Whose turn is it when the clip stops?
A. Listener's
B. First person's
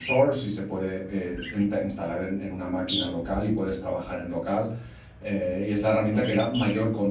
B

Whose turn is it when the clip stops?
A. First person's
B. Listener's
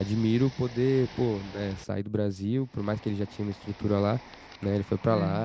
A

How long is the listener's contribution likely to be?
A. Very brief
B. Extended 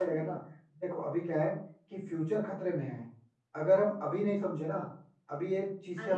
A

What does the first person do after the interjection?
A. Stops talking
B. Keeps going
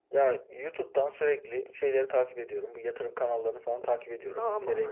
A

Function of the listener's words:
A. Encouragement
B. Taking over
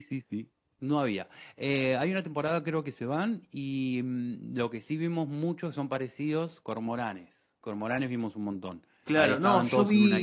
B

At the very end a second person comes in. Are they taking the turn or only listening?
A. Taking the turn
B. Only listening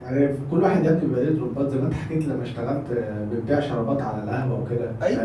A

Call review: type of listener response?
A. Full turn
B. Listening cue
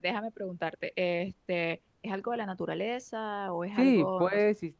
A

